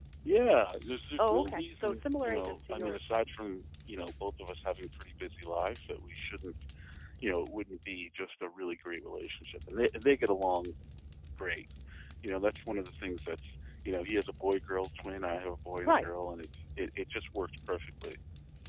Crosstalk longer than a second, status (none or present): present